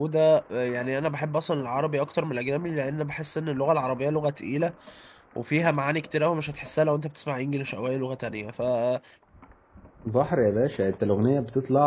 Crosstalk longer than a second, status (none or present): none